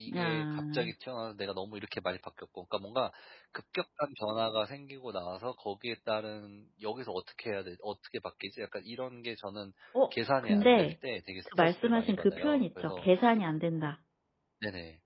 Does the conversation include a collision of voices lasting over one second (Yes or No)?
Yes